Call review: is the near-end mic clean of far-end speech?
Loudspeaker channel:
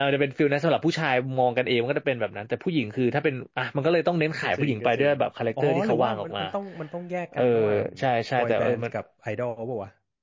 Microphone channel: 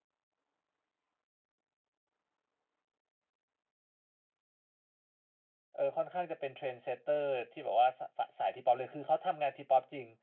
Yes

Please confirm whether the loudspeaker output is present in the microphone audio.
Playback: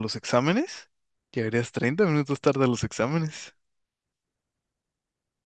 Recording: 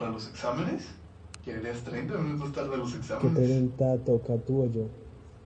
Yes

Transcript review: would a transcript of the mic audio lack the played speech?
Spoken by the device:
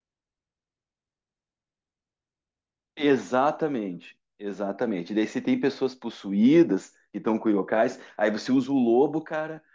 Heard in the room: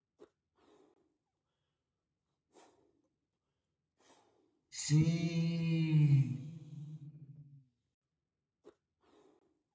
Yes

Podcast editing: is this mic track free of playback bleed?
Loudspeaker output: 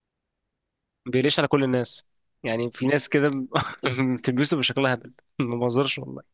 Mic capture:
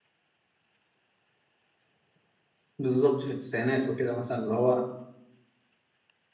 Yes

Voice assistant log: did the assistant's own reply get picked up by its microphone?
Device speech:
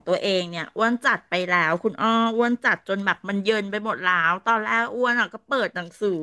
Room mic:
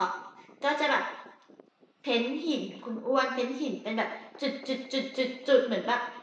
No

